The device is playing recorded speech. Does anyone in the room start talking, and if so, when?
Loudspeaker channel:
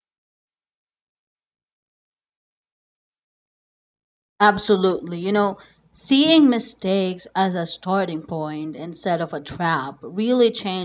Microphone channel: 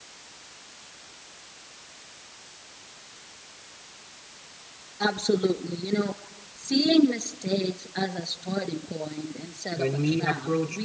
9.7 s

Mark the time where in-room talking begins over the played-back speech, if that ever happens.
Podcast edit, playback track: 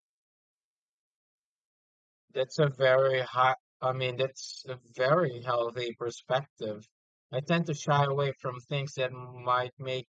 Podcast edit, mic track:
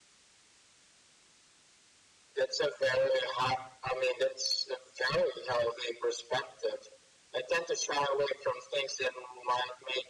none

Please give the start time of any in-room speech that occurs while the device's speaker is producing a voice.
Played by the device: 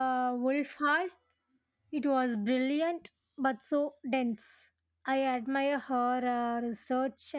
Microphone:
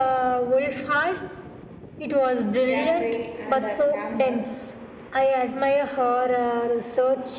2.5 s

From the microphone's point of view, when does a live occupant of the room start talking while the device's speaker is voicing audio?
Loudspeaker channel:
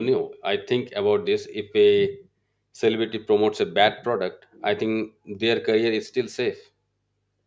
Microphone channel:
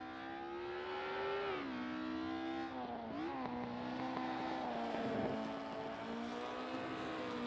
none

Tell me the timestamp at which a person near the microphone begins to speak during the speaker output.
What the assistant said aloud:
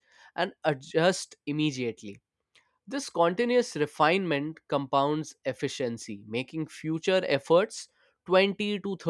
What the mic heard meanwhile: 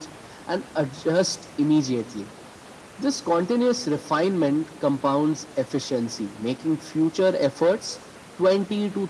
none

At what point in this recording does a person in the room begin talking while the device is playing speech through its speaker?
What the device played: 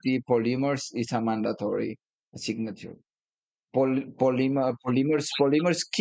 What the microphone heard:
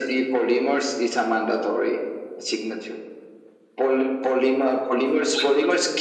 none

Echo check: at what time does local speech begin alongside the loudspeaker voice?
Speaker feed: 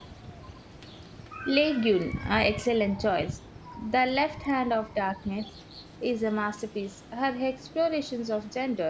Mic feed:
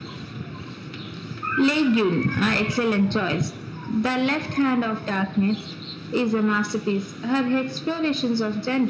none

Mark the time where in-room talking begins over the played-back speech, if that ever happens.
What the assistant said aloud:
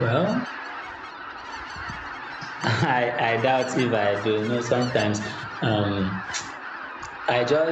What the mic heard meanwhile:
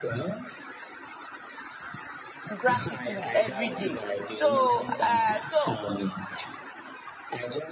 2.6 s

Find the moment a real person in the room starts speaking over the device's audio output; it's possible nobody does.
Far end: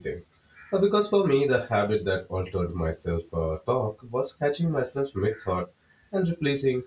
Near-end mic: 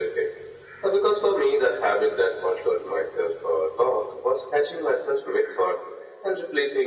none

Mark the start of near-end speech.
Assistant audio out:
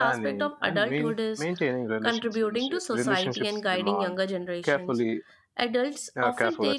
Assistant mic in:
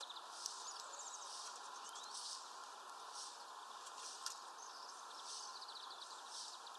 none

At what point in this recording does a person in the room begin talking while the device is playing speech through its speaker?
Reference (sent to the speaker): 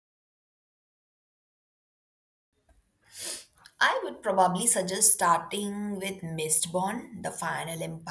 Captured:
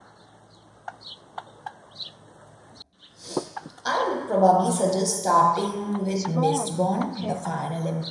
6.1 s

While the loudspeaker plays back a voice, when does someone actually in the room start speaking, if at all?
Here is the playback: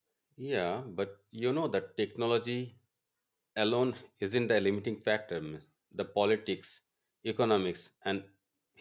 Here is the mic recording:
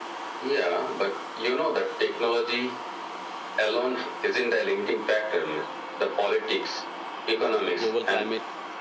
7.4 s

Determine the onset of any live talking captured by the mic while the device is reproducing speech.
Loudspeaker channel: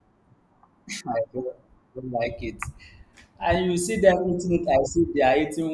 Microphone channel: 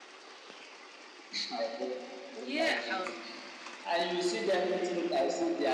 2.3 s

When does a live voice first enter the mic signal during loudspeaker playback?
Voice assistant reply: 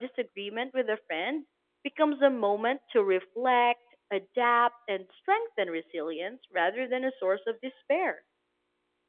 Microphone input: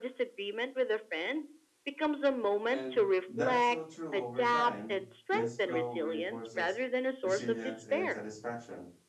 2.6 s

